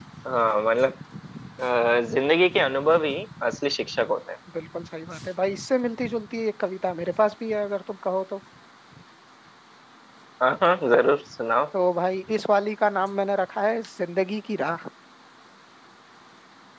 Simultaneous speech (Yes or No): No